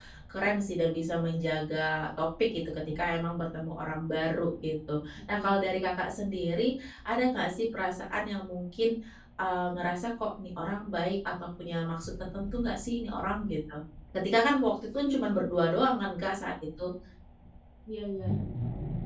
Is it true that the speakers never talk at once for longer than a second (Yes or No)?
Yes